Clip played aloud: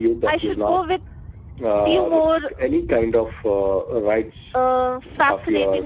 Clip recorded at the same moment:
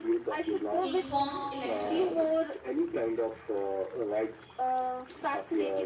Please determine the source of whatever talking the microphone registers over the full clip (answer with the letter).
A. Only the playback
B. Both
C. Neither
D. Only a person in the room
B